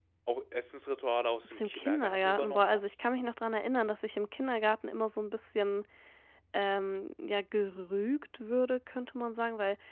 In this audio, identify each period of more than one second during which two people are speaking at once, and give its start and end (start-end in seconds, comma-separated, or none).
1.5-2.8